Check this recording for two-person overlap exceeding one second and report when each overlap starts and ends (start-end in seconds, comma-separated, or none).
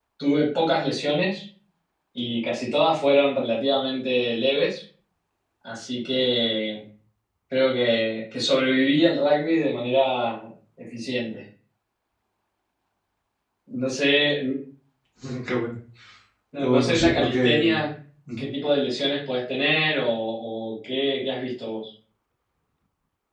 16.6-17.8